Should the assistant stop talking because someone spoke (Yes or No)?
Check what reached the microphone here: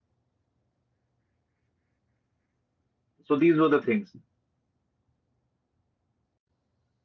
Yes